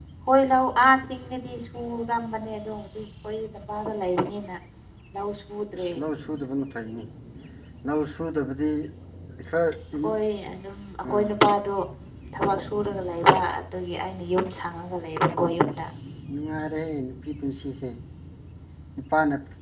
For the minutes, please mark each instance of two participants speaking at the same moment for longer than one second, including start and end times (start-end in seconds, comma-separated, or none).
none